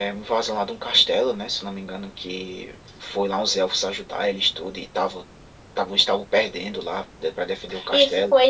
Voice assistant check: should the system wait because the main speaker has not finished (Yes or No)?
No